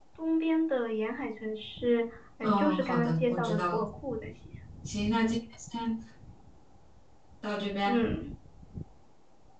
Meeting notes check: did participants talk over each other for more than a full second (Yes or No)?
Yes